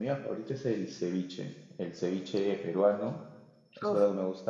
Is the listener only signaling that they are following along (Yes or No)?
Yes